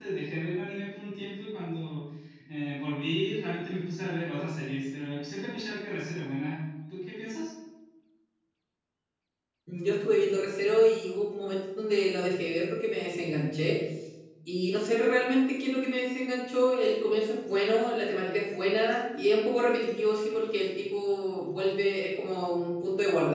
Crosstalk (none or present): none